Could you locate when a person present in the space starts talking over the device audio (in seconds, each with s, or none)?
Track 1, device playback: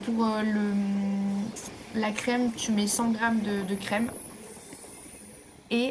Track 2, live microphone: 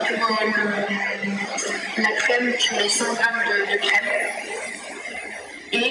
none